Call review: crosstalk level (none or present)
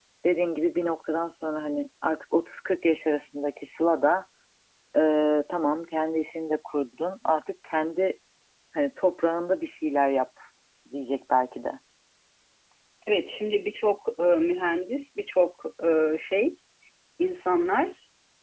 none